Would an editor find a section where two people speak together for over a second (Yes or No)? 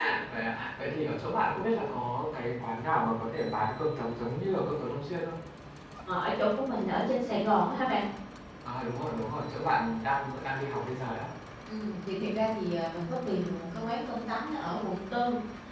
No